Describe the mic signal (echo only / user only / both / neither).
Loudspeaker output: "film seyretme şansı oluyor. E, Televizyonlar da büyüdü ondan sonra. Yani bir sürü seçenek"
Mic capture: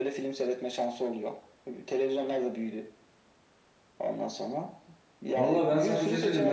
both